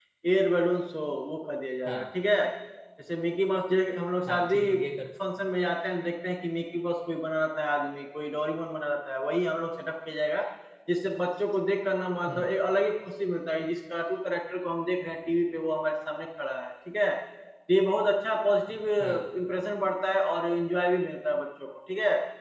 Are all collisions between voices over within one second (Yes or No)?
Yes